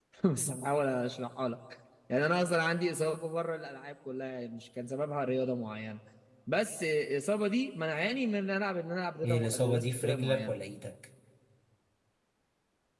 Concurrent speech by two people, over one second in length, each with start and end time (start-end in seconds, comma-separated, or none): 9.2-10.6